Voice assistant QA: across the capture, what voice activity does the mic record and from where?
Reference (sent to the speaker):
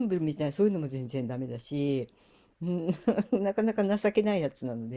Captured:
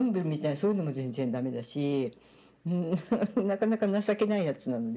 echo only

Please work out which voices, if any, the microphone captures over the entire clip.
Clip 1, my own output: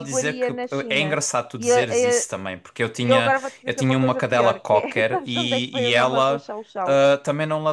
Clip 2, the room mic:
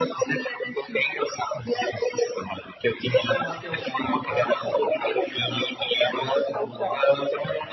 both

